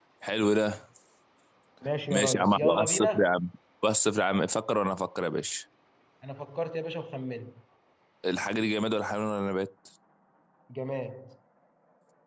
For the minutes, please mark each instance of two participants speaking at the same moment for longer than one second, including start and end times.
2.1-3.3

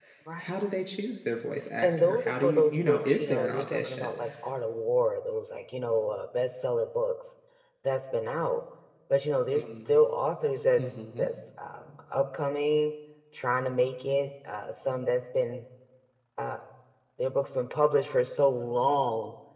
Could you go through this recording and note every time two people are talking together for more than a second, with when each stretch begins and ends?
1.8-4.1

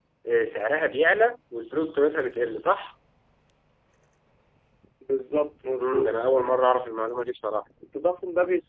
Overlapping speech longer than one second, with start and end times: none

